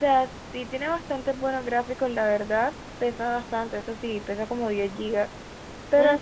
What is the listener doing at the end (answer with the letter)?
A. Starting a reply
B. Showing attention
B